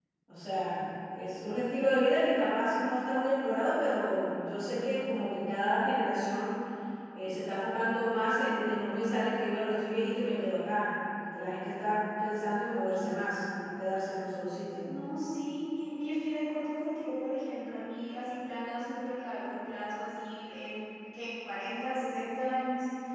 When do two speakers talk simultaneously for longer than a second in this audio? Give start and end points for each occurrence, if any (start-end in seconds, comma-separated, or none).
none